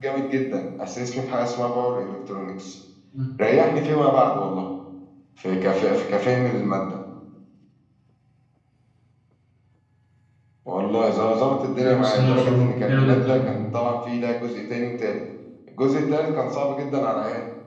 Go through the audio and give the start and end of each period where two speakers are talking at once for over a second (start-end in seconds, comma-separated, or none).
12.0-13.6